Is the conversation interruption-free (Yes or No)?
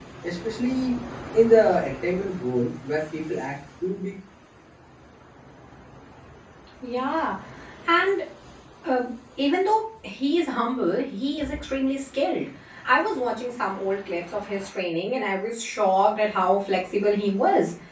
Yes